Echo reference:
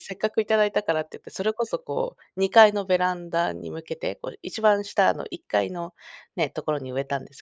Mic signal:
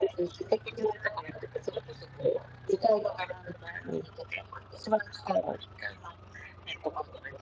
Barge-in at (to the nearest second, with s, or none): none